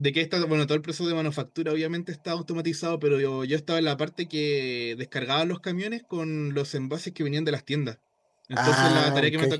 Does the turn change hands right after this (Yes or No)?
No